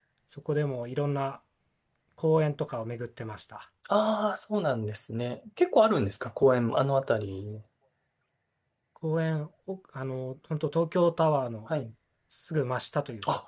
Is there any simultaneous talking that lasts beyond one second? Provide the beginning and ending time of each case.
none

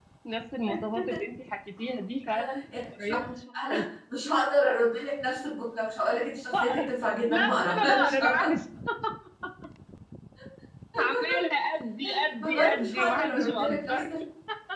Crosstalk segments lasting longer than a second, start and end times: 7.3-8.5, 12.4-14.2

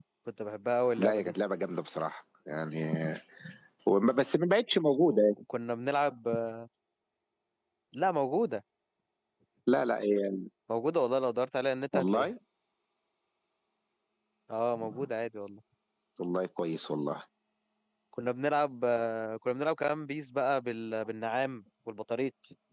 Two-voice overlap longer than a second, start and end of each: none

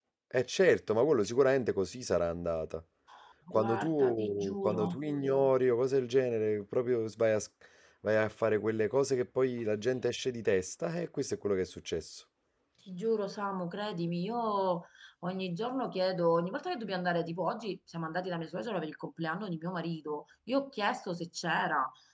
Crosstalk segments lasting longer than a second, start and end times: 3.5-5.0

